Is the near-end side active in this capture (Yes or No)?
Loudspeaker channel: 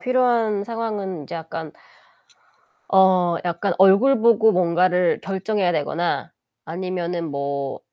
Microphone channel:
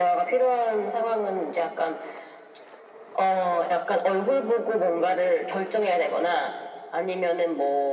No